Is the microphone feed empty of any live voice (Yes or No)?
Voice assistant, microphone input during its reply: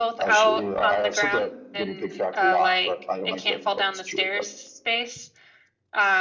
No